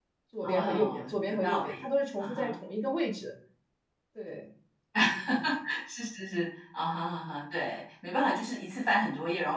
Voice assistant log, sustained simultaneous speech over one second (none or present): present